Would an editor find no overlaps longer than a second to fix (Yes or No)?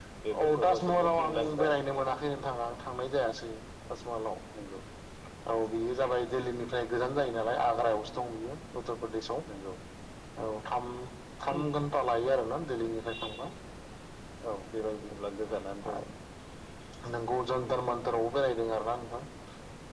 No